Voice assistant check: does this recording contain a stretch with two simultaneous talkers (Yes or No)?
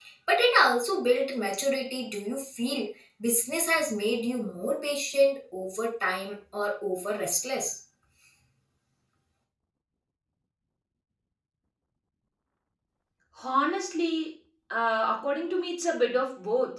No